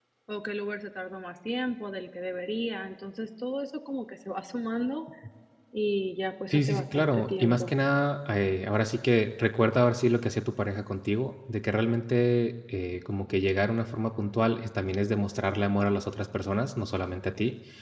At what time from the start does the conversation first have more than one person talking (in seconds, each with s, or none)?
6.5 s